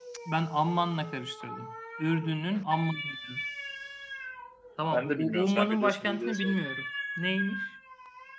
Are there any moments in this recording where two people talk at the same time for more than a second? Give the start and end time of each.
4.9-6.5

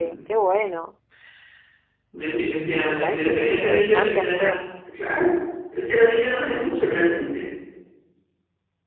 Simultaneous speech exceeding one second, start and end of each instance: 2.2-4.5

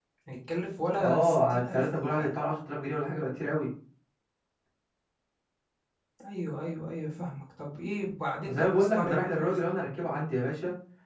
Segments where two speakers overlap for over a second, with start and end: 1.0-2.4, 8.4-9.7

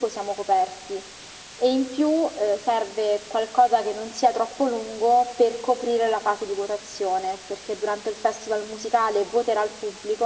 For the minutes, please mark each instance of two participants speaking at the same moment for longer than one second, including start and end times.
none

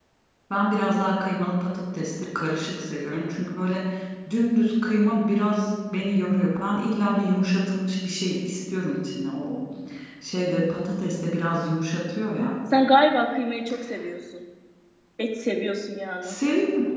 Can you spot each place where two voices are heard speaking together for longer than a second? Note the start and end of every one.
none

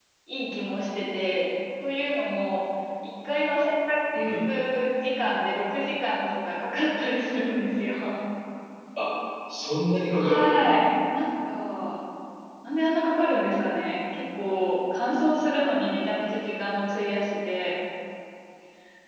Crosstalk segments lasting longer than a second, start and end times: none

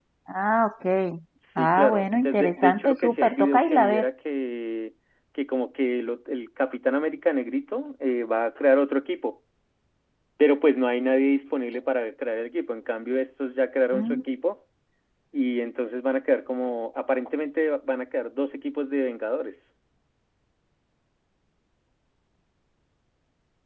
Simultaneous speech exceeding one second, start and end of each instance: 1.6-4.1

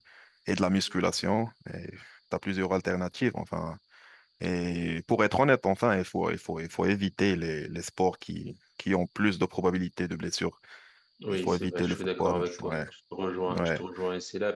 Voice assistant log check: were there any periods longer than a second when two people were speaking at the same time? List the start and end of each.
11.3-12.8

